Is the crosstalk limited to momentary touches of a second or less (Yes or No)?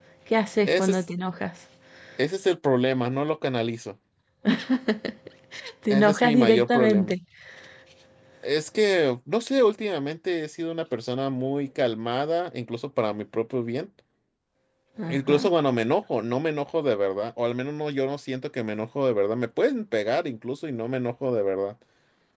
No